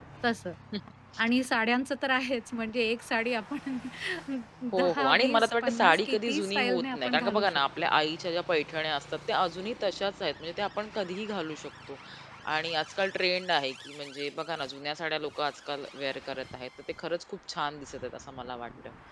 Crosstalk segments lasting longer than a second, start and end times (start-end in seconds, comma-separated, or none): 4.8-7.6